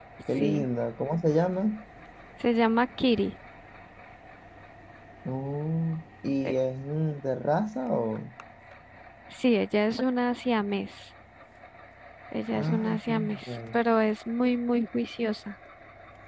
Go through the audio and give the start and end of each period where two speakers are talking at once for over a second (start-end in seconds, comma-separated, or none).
12.5-13.8